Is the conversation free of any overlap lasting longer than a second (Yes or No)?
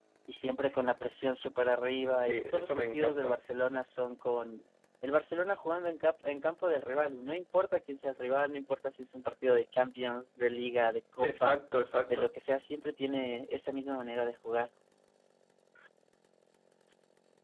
No